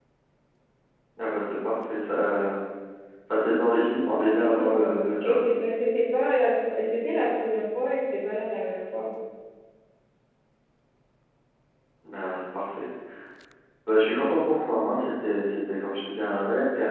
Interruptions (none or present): present